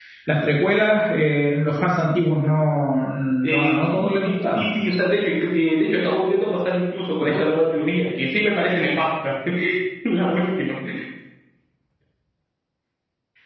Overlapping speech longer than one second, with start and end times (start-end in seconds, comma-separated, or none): 3.5-4.7